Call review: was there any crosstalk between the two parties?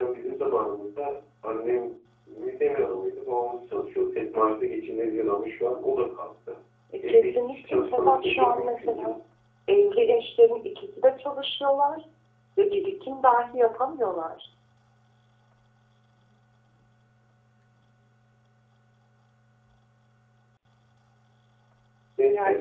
Yes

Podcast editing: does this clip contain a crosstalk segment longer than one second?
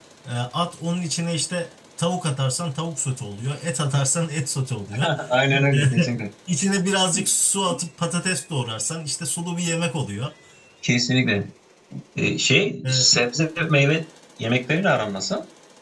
No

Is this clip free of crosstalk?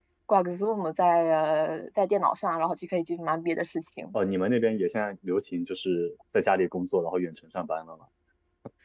Yes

